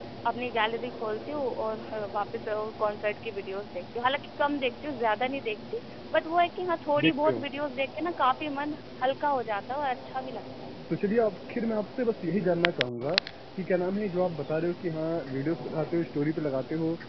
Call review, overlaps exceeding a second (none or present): none